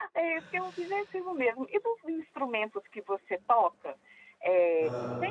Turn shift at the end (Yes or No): No